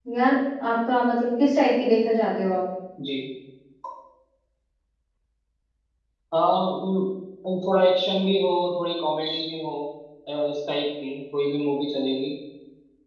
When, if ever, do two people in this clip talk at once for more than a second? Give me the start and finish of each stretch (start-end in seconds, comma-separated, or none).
none